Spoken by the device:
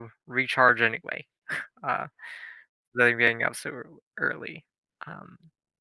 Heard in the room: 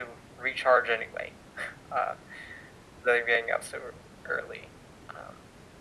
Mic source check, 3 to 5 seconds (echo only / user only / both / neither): echo only